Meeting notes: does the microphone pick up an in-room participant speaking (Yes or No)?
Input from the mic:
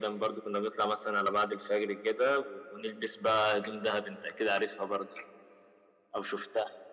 No